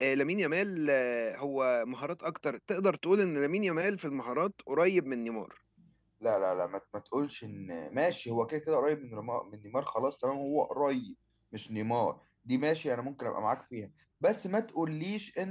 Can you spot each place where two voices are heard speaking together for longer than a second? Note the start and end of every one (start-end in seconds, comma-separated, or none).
none